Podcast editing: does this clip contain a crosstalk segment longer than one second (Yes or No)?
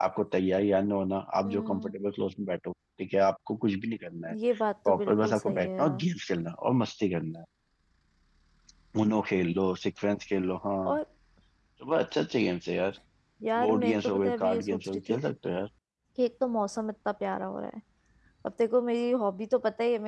Yes